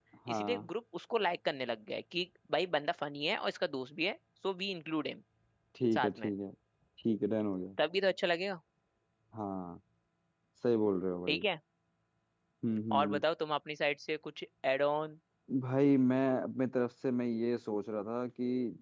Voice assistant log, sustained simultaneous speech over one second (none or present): none